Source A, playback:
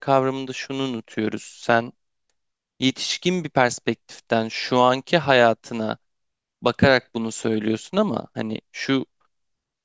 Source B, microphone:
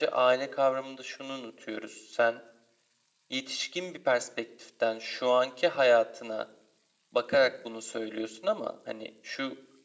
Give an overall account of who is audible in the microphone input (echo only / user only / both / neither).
echo only